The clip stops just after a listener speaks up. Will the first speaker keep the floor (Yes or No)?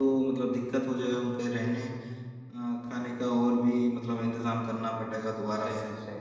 No